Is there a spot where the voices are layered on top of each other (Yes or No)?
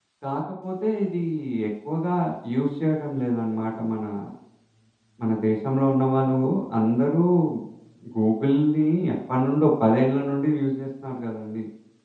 No